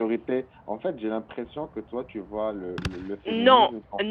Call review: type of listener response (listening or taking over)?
taking over